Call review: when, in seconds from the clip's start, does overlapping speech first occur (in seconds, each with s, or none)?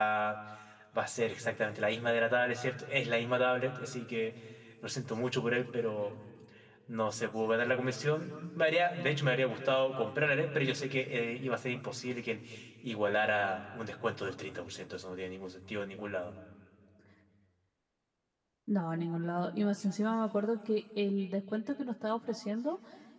none